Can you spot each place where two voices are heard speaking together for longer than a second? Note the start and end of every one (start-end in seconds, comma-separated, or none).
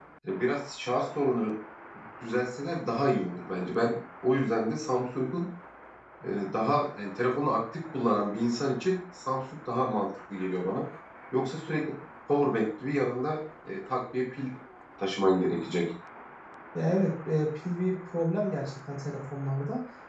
none